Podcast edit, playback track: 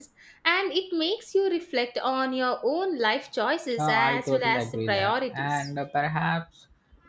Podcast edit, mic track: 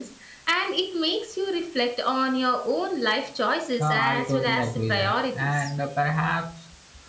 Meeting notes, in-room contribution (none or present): none